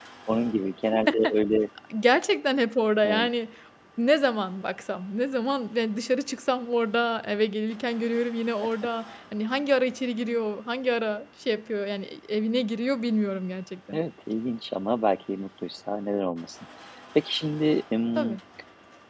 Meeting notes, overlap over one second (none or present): none